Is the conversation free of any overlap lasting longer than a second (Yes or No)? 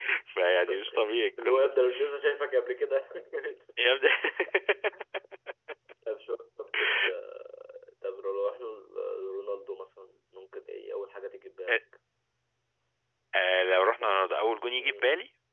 Yes